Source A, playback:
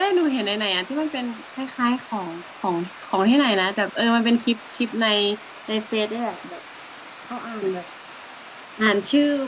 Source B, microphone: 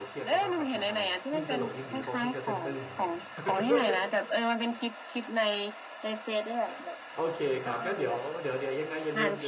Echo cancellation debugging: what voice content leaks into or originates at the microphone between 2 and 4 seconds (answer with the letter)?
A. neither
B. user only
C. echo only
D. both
D